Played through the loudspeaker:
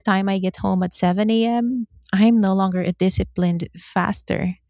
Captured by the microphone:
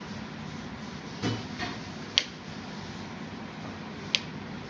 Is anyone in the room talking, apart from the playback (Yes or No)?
No